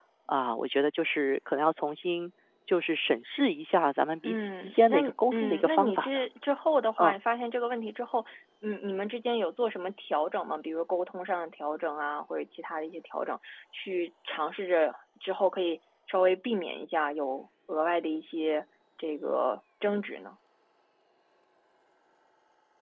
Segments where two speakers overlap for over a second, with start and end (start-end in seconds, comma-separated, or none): 4.2-6.1